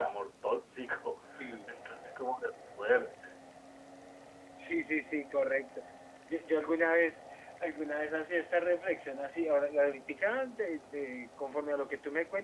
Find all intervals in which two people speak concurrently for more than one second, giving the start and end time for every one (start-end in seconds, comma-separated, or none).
none